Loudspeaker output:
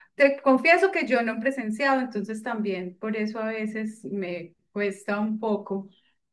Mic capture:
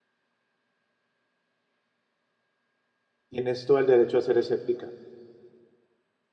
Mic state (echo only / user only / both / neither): user only